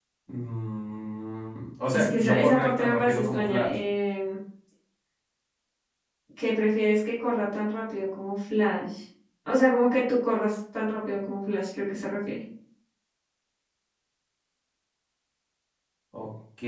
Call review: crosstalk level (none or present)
present